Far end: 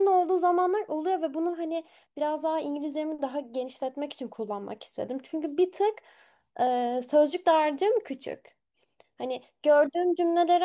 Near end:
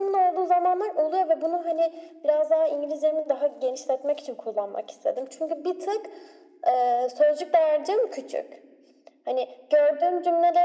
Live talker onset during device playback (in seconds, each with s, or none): none